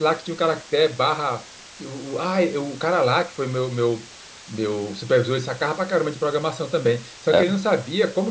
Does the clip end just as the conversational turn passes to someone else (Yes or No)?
No